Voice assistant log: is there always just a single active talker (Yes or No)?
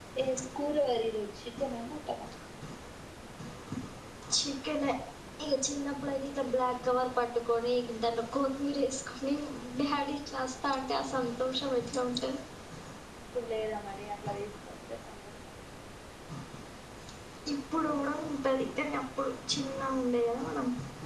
Yes